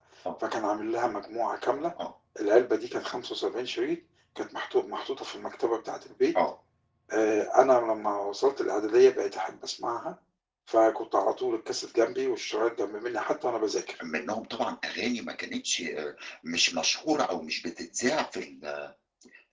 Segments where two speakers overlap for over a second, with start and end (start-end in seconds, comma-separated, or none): none